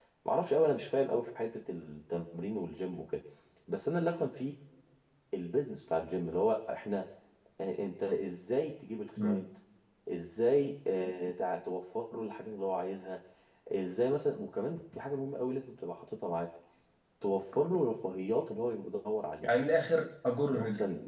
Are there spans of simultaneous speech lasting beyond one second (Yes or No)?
No